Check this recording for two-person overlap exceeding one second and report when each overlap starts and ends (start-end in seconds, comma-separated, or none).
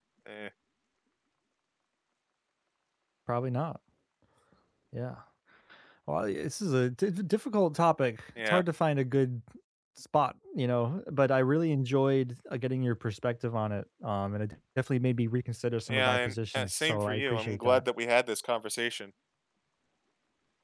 15.9-17.8